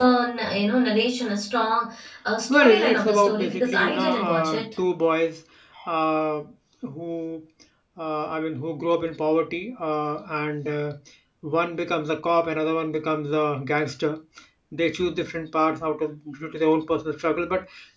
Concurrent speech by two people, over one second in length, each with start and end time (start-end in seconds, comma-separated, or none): 2.5-4.7